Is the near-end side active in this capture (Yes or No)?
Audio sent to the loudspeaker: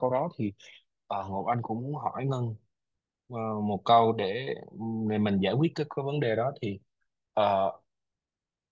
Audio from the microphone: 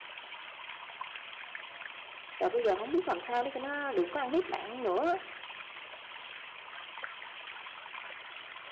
Yes